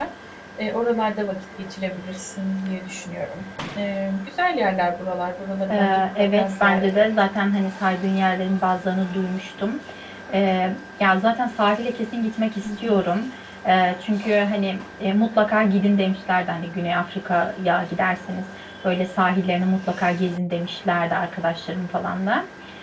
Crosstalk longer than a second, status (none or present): present